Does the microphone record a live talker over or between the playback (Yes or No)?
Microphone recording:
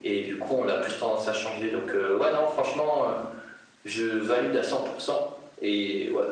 No